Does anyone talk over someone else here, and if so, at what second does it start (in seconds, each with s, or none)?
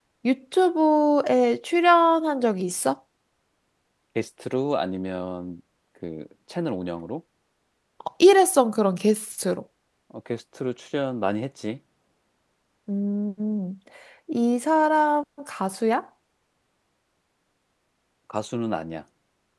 none